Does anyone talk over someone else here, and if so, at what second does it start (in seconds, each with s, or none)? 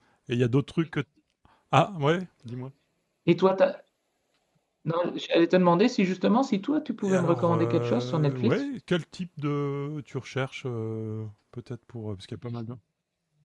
7.0 s